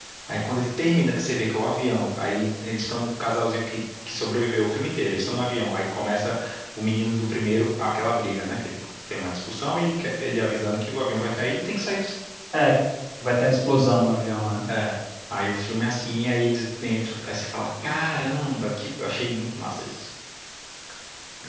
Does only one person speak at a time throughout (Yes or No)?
Yes